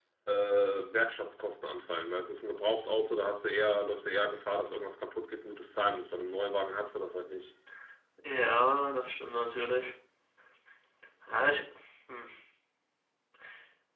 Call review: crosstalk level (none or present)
none